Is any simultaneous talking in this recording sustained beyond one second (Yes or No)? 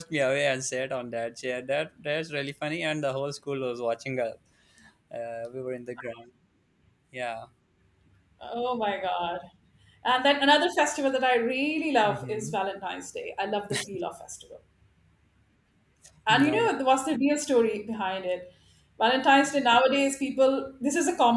No